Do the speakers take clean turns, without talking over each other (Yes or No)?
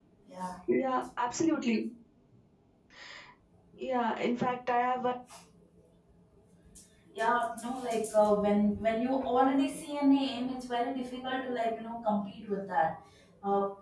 Yes